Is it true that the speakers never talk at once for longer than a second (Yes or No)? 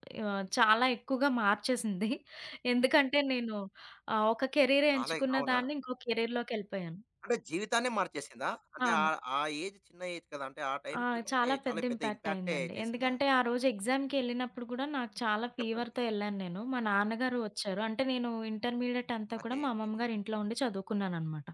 No